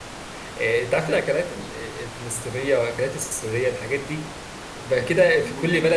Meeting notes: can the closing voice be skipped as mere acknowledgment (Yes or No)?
Yes